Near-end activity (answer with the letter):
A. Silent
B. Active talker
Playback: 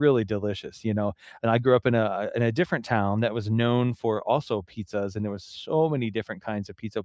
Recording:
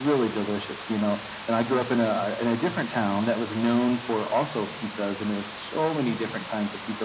A